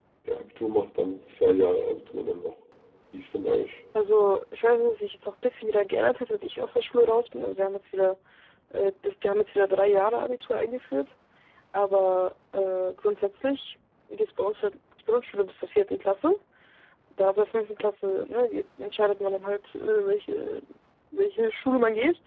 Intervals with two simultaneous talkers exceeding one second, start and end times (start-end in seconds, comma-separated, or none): none